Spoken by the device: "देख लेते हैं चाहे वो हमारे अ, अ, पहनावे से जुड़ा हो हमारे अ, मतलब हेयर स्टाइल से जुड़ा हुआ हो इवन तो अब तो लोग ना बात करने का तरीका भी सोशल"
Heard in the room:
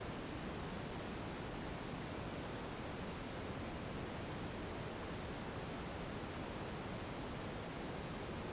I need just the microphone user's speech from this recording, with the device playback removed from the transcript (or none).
none